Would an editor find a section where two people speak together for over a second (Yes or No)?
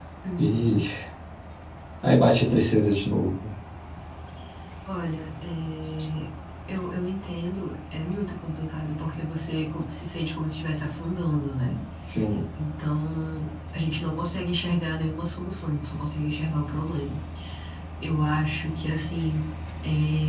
No